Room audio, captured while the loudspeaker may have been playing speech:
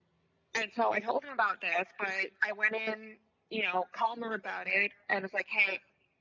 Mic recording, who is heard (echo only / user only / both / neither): echo only